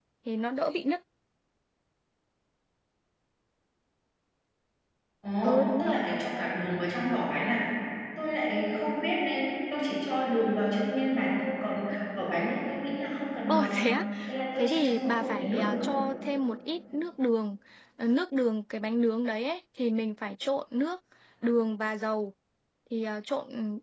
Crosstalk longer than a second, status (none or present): present